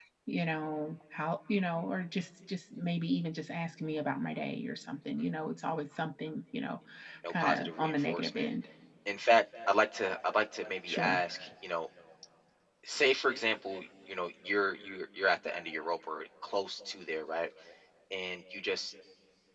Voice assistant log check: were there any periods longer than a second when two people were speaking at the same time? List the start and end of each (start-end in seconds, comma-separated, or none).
7.3-8.5